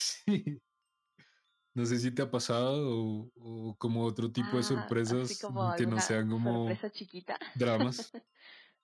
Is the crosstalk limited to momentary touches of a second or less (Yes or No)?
No